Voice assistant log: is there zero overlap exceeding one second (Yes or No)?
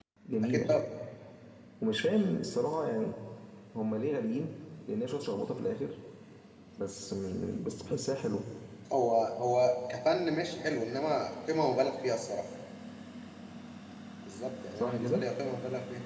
Yes